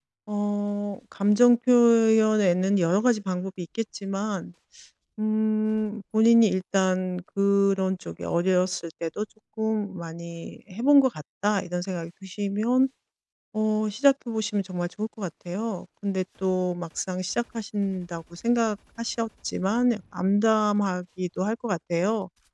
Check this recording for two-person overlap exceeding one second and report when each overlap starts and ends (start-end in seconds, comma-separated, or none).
none